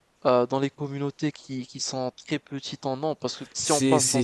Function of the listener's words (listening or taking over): taking over